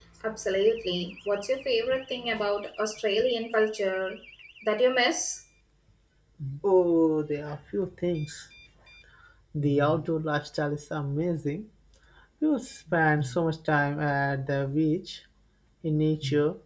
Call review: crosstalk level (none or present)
none